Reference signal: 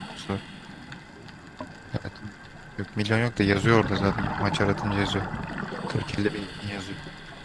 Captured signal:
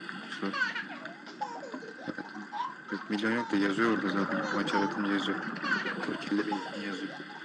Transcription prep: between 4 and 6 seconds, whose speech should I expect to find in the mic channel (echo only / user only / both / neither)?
echo only